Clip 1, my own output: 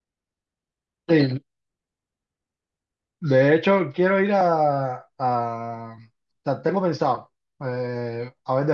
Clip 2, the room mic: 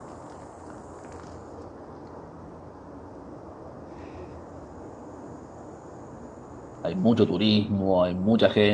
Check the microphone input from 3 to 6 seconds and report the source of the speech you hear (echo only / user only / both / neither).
neither